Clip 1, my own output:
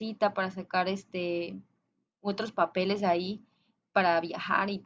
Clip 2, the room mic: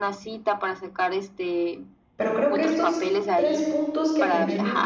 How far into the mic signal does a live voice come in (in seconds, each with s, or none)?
2.2 s